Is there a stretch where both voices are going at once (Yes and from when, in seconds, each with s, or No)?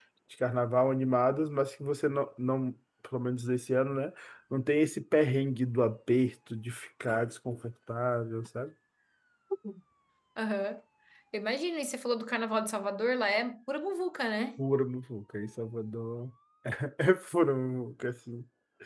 No